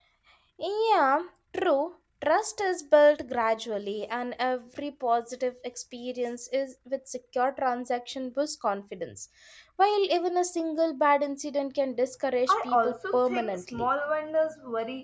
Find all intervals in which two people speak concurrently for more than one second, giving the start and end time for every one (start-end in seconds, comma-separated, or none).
12.5-13.9